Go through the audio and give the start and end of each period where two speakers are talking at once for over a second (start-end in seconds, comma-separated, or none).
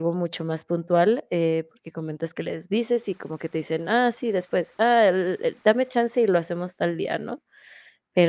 none